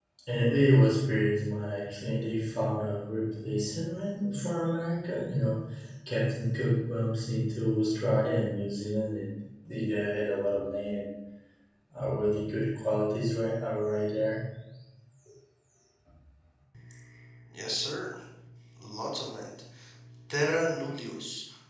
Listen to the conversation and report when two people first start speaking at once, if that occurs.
none

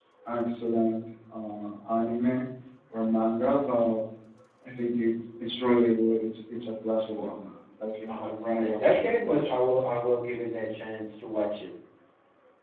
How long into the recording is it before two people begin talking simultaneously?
8.1 s

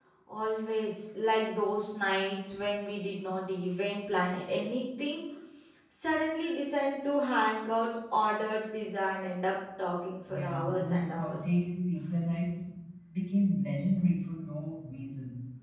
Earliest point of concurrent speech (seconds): 10.3 s

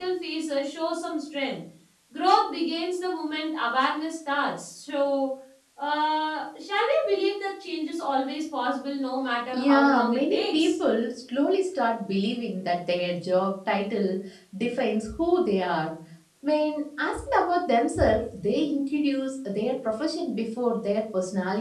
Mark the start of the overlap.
9.5 s

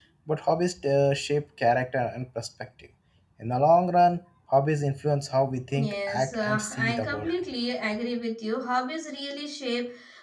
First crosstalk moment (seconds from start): 5.7 s

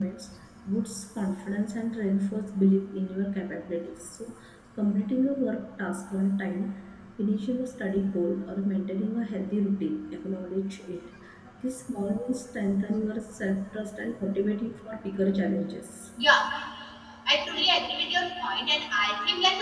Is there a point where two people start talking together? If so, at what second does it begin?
none

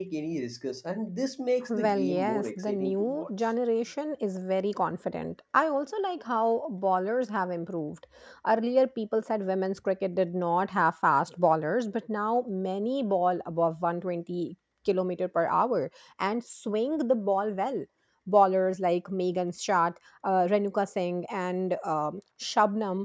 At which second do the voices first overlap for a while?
1.7 s

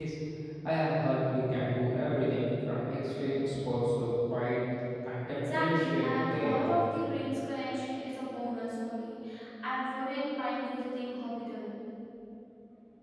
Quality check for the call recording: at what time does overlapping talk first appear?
5.3 s

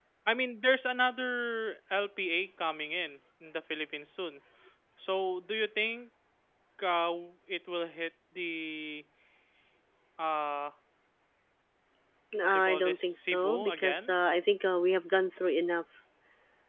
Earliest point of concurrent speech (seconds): 12.4 s

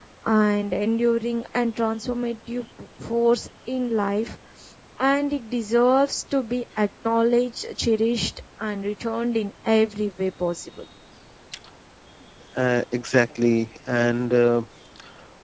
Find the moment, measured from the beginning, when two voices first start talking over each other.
none

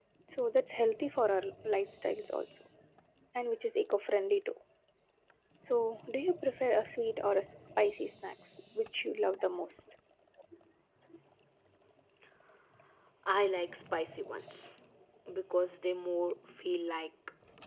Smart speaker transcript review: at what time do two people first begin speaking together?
none

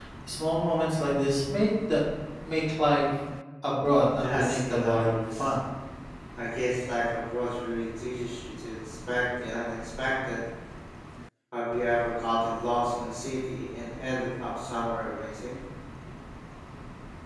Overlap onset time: 4.2 s

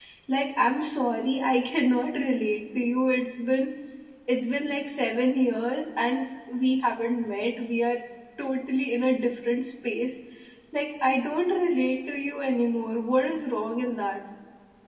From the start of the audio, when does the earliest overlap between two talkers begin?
none

